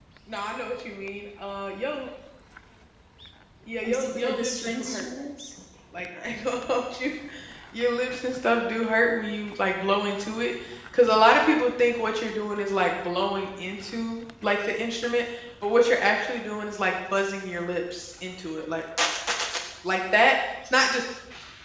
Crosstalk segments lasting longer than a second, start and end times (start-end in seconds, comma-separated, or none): 3.8-5.1